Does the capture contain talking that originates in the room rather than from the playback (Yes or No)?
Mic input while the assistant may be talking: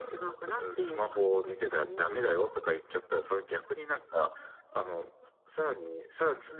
No